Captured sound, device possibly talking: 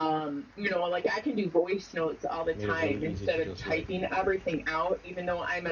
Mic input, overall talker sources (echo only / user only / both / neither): both